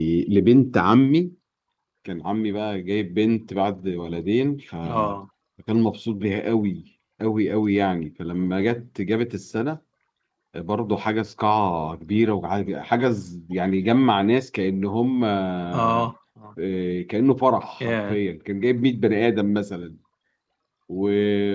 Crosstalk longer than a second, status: none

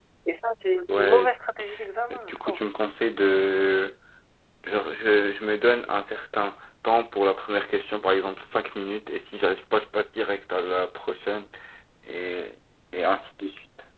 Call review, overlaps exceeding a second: none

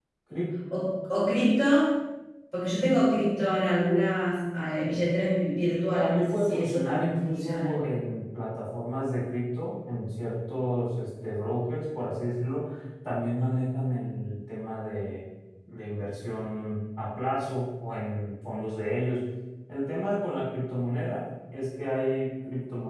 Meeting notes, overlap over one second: present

